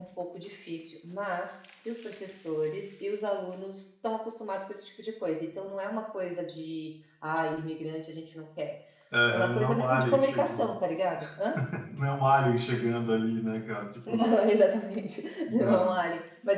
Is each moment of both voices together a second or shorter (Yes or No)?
No